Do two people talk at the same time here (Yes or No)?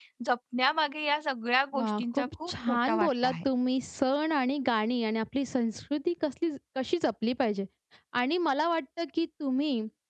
Yes